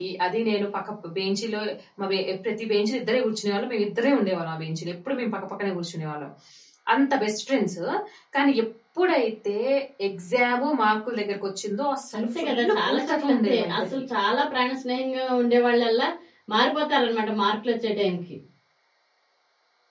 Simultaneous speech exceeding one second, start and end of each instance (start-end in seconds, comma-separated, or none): 12.2-13.8